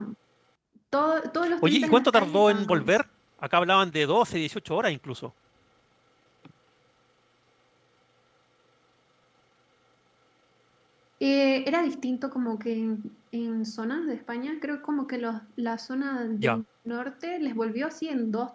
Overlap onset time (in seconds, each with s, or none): 1.6 s